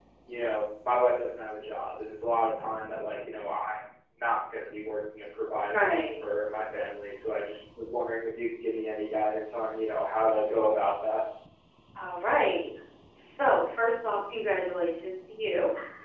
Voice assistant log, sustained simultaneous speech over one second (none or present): none